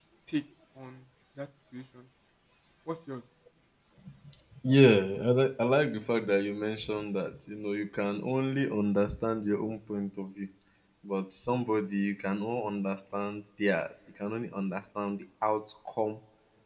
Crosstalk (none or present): none